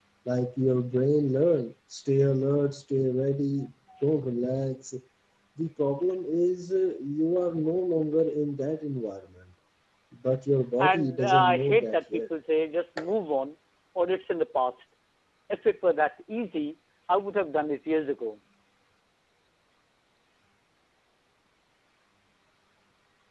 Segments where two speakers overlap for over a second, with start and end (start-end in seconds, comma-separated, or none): 10.8-12.2